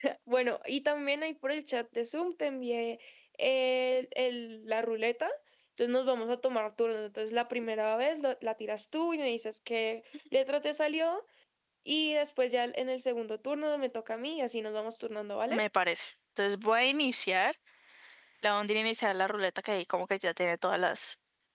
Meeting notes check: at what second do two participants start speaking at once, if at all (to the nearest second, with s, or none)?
none